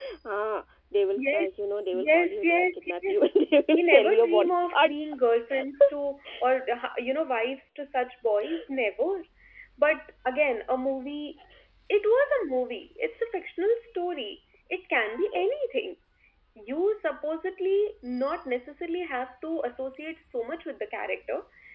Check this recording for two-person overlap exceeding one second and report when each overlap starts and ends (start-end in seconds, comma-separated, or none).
1.9-3.2, 3.7-4.9